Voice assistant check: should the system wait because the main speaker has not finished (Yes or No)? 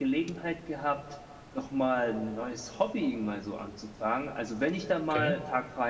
Yes